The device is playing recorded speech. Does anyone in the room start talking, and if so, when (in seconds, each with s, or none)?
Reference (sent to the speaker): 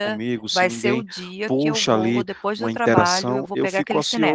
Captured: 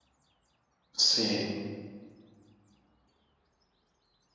0.9 s